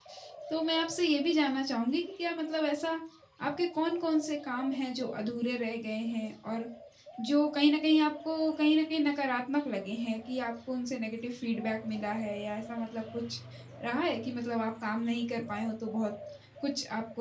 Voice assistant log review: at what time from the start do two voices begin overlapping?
none

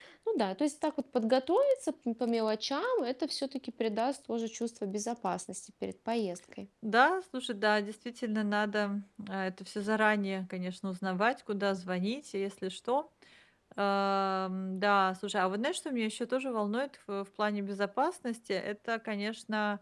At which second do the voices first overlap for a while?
none

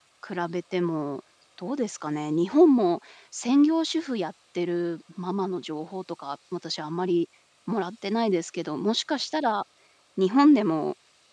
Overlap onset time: none

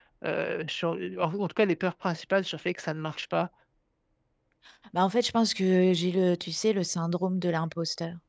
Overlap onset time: none

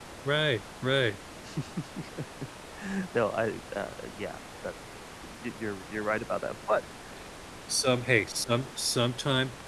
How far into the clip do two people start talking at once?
none

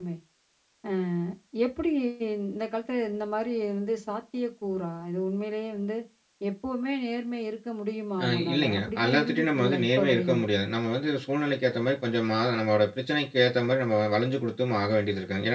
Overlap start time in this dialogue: 8.2 s

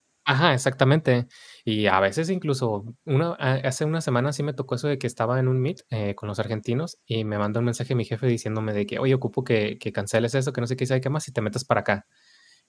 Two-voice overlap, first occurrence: none

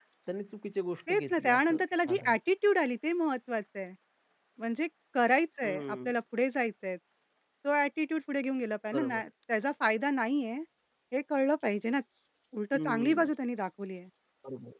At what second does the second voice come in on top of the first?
1.1 s

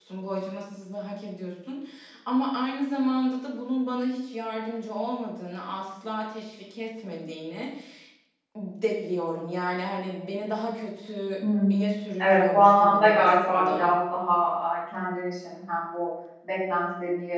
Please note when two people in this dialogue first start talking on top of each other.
12.2 s

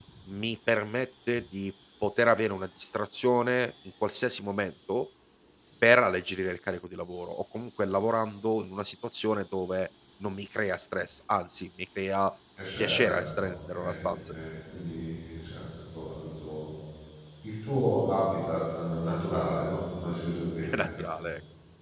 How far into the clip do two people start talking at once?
12.8 s

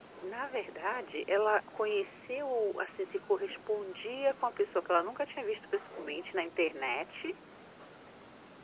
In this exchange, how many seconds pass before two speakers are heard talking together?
none

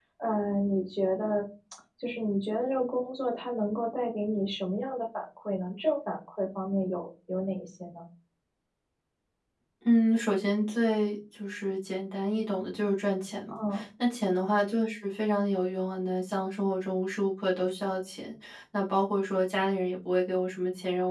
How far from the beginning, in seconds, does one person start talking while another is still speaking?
none

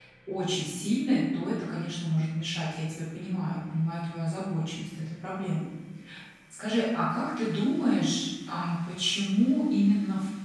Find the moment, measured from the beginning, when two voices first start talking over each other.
none

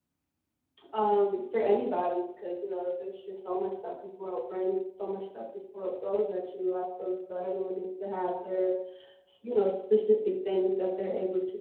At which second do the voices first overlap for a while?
none

